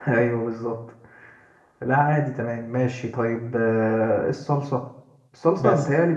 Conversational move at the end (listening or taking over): listening